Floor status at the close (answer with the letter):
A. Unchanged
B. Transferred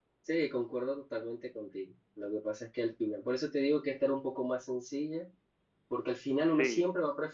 A